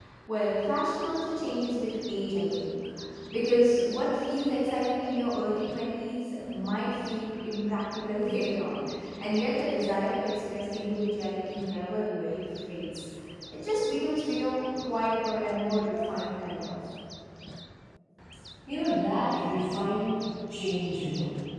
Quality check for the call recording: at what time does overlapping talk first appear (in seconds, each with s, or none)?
none